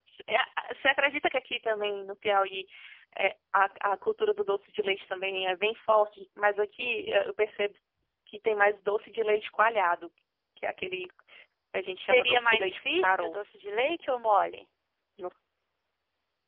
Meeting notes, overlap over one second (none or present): present